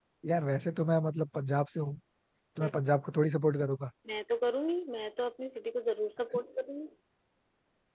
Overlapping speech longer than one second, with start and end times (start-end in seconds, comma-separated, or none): none